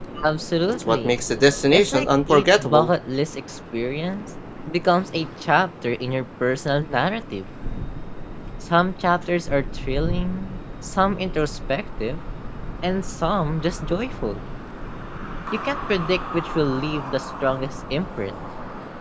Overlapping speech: Yes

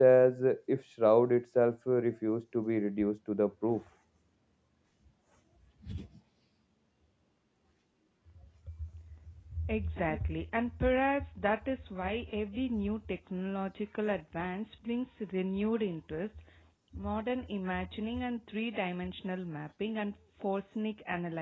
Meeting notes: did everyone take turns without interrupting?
Yes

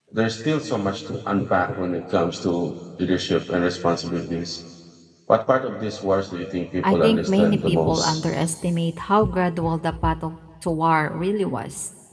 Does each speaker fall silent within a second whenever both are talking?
No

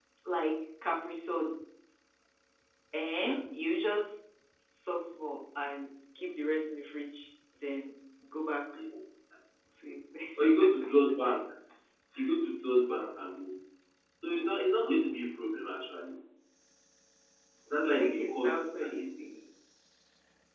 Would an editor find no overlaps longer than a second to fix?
No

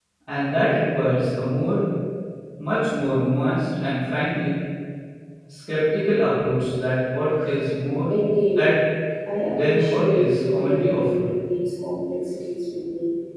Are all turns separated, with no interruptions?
No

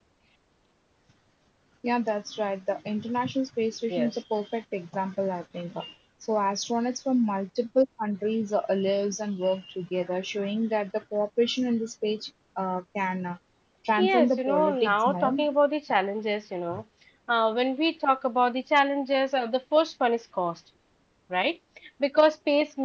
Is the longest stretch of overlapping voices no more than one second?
No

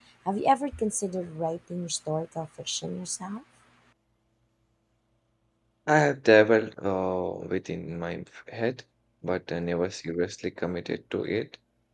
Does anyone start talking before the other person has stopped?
No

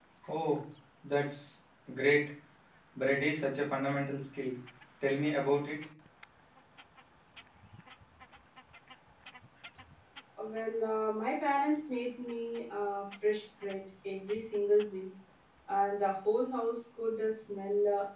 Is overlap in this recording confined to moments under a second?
Yes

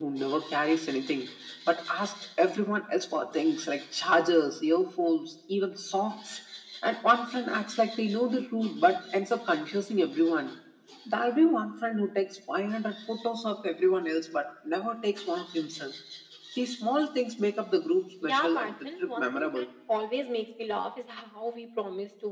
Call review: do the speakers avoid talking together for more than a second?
No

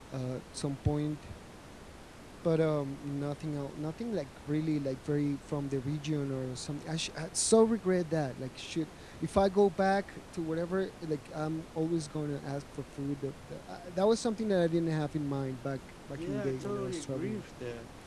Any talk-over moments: Yes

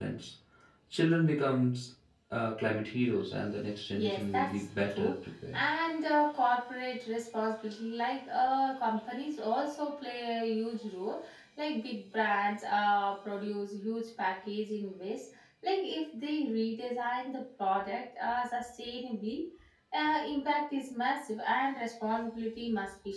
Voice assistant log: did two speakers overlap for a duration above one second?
Yes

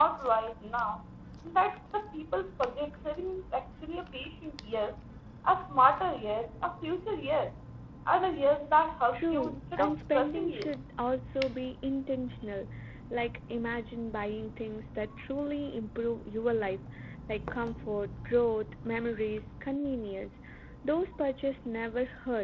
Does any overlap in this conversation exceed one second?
Yes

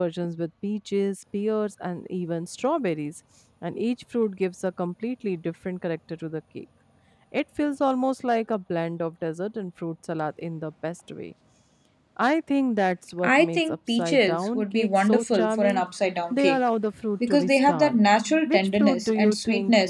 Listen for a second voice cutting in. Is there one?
Yes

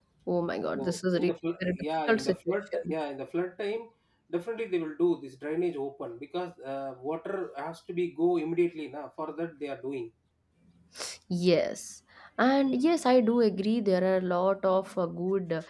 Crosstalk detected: Yes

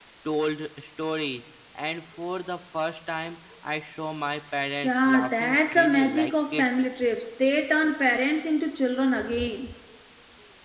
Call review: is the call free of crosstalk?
No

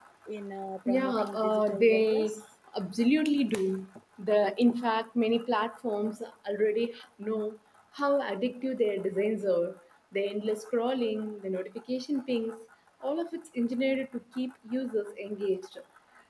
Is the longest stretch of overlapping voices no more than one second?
No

